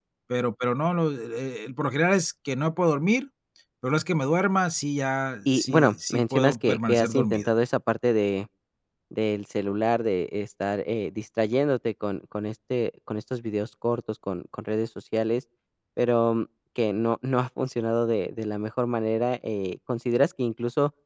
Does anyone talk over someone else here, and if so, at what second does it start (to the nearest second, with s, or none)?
5 s